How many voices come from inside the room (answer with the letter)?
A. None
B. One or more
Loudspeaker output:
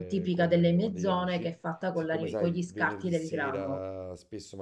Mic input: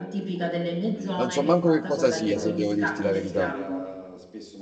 B